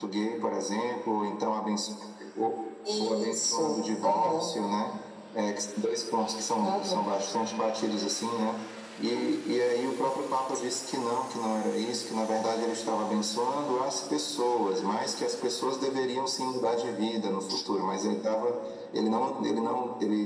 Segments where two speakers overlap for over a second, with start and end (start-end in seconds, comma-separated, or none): 3.0-4.5